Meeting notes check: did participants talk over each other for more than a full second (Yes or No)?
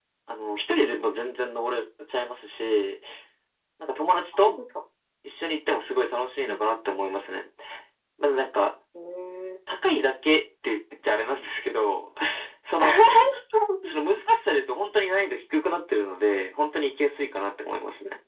No